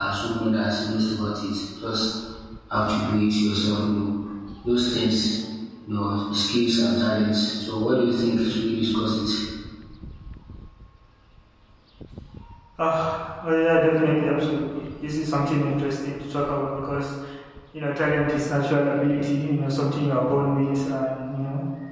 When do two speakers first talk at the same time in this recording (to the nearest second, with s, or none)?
none